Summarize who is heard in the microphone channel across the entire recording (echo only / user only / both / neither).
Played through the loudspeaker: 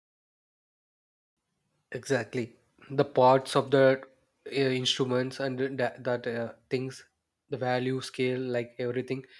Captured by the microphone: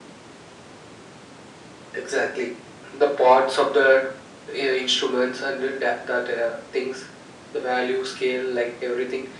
echo only